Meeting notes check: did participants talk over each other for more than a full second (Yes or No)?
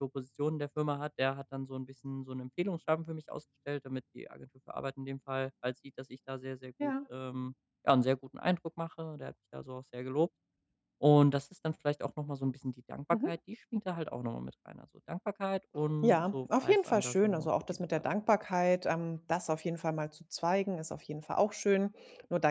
Yes